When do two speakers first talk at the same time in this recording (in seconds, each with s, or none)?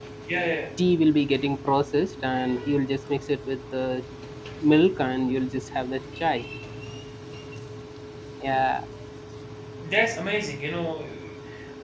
none